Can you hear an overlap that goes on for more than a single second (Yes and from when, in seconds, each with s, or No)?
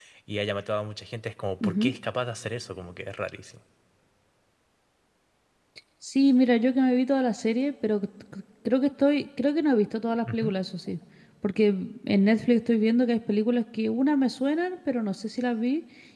No